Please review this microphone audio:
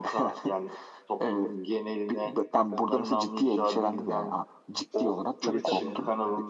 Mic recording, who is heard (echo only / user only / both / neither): both